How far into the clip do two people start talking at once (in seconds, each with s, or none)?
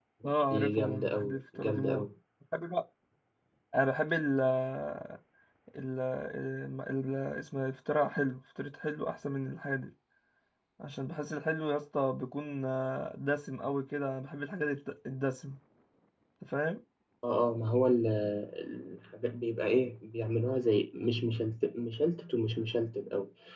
0.5 s